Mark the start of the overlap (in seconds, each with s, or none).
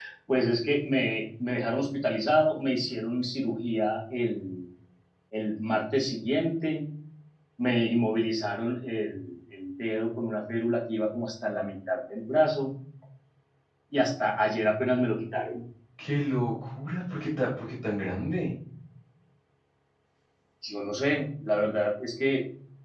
none